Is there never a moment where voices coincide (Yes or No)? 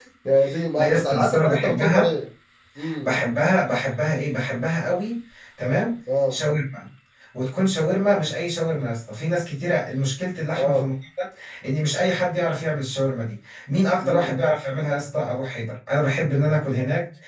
No